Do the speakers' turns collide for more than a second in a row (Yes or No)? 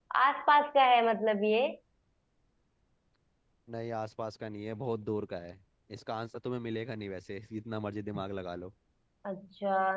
No